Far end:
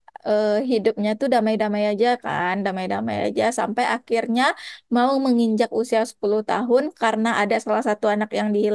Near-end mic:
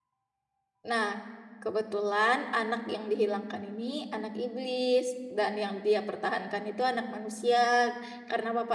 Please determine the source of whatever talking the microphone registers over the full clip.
user only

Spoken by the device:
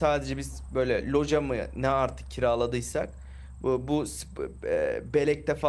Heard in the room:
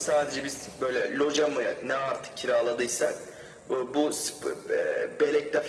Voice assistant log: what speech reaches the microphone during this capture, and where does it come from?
echo only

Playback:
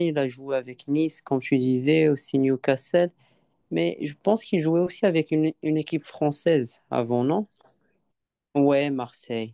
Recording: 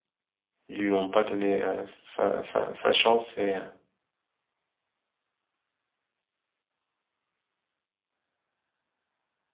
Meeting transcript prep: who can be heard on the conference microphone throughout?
user only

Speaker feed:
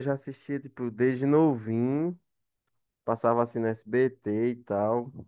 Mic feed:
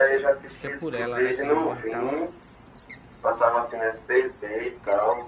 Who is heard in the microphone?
both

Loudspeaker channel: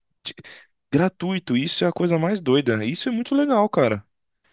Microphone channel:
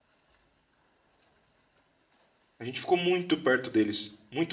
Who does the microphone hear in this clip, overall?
user only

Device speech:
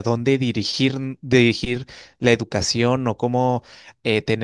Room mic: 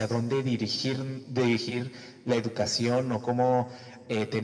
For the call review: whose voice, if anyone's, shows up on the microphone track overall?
echo only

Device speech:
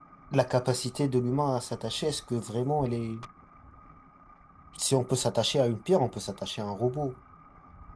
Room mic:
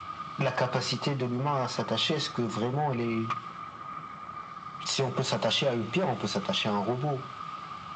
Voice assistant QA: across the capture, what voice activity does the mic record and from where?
echo only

